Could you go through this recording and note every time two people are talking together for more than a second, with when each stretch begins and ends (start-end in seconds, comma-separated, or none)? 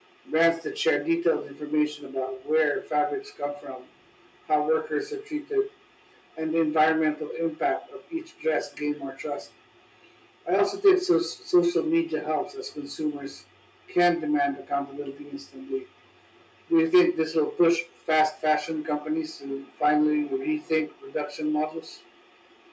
none